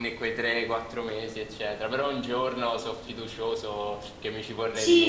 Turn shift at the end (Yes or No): Yes